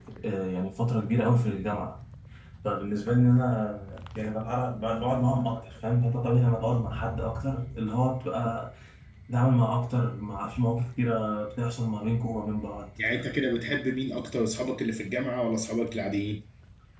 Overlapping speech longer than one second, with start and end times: none

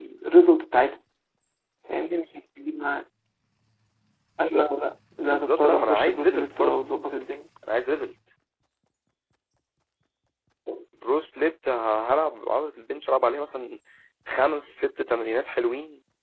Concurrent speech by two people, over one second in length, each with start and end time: 5.2-6.8

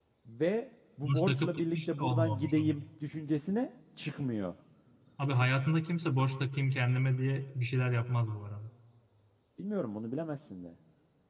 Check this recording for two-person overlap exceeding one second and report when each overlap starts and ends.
1.0-2.8

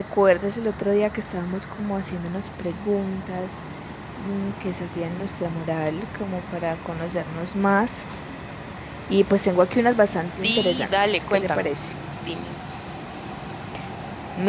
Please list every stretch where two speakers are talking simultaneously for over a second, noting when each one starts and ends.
10.4-11.7

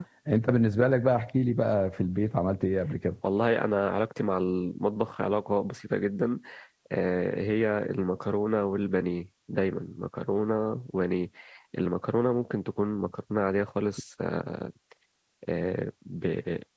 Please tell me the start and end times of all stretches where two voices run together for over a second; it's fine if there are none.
none

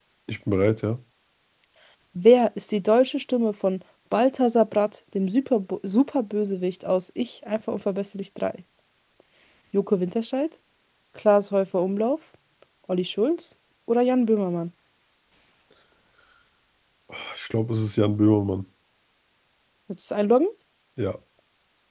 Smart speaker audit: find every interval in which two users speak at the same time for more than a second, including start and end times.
none

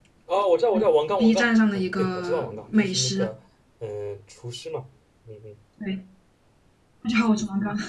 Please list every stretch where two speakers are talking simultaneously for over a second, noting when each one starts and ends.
1.2-3.3

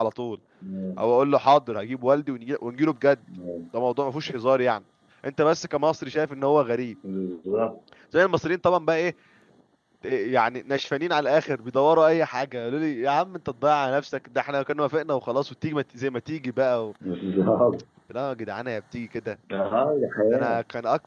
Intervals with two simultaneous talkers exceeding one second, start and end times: none

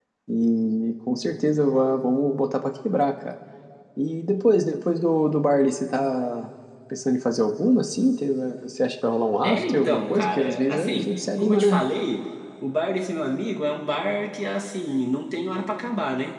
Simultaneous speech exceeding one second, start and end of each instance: 9.4-11.8

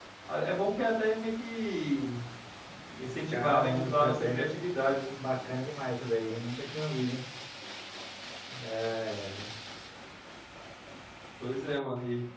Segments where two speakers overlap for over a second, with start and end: 3.3-4.5

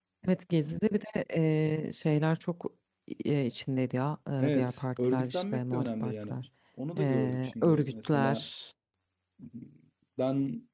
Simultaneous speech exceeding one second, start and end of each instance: 4.4-6.3, 7.0-8.5

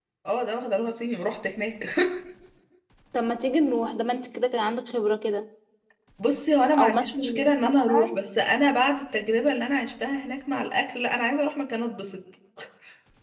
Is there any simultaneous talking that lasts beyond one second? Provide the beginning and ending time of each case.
6.8-8.2

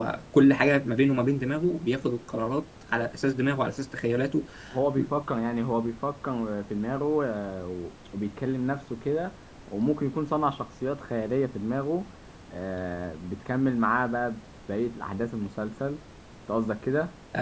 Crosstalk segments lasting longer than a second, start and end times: none

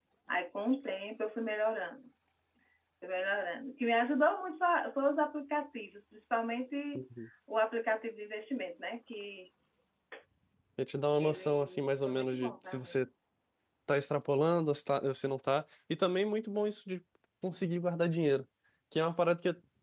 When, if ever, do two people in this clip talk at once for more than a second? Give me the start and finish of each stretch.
11.2-13.0

